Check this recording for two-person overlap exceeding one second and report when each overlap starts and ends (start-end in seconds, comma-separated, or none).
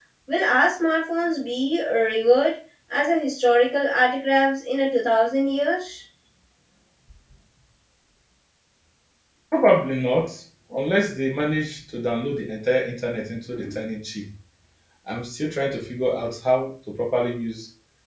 none